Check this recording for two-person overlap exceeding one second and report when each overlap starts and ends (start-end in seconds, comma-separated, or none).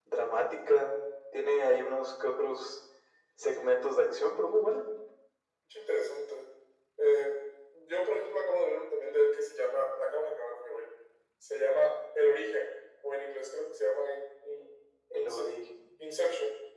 none